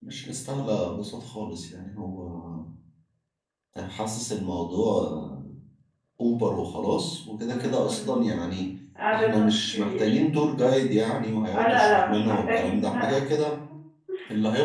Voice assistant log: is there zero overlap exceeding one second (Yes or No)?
No